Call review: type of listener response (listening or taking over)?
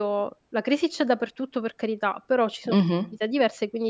listening